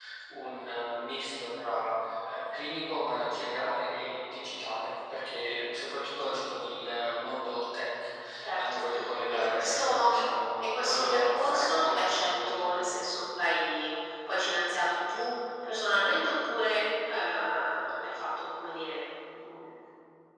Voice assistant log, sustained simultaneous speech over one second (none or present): present